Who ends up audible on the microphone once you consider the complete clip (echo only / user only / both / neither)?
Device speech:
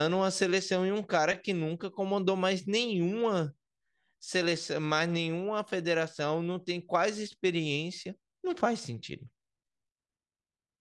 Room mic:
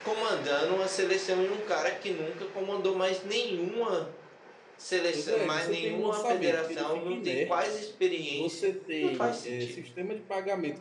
both